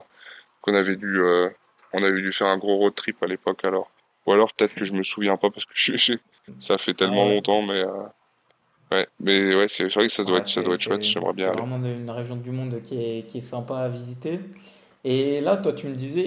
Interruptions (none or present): present